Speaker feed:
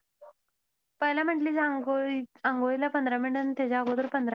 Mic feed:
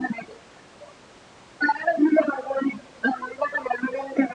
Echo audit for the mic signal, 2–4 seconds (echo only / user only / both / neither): echo only